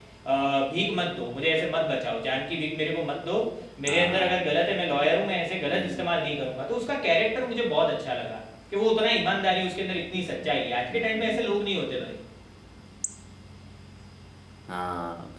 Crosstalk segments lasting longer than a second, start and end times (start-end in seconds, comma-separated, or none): none